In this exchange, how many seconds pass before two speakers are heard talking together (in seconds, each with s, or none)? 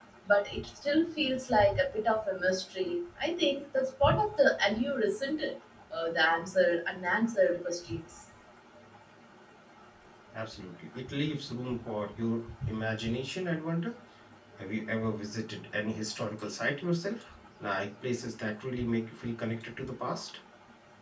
none